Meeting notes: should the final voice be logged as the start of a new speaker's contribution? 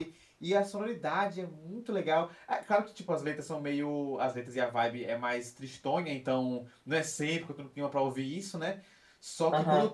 No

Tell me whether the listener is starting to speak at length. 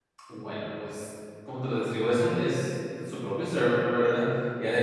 No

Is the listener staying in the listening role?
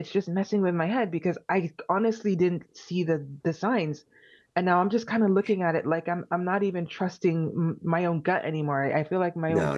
No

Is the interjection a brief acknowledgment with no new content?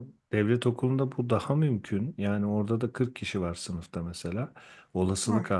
Yes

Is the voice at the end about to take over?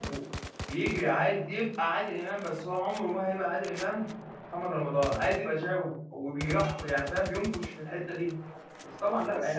Yes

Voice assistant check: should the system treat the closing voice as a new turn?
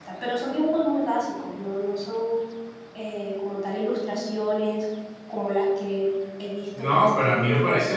Yes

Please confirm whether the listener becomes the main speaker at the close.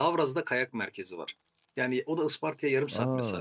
No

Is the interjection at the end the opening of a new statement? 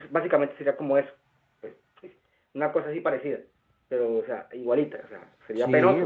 Yes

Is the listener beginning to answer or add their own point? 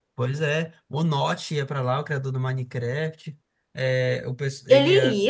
No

